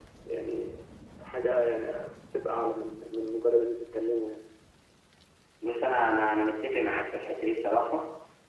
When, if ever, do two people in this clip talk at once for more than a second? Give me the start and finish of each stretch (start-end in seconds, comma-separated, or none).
none